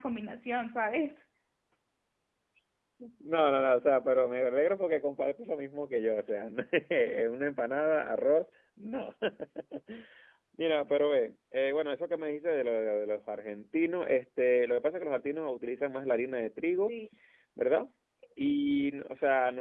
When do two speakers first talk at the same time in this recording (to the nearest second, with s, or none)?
none